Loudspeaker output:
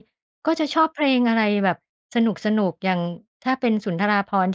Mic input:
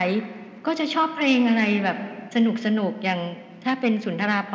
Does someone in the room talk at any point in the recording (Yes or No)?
No